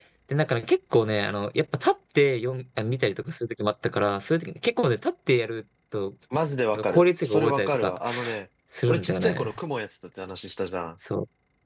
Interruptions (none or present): present